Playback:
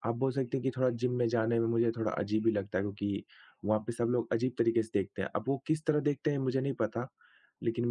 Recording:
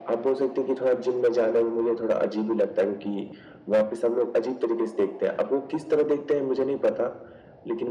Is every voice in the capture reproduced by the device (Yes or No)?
Yes